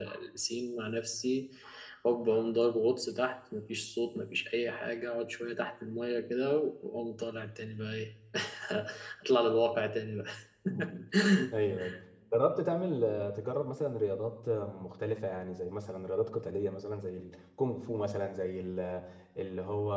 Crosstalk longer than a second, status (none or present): none